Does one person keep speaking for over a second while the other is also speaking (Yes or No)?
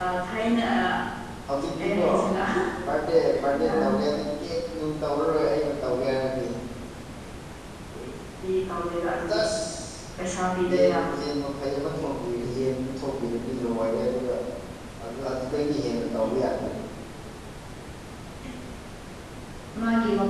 No